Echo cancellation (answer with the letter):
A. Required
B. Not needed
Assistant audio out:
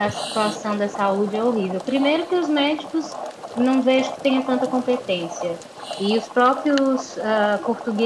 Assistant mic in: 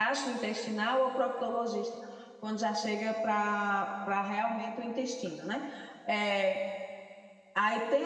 B